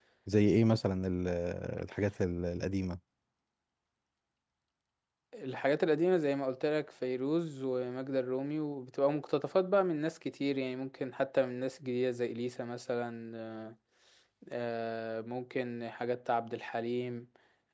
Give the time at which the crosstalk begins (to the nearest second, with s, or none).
none